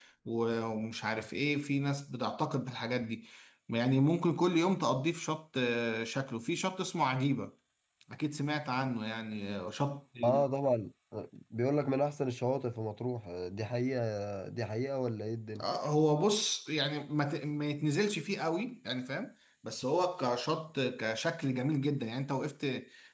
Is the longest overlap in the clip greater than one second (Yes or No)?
No